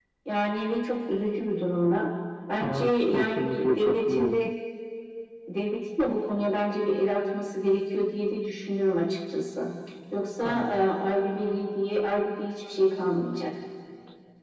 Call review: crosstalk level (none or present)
present